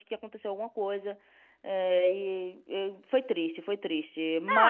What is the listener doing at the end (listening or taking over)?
taking over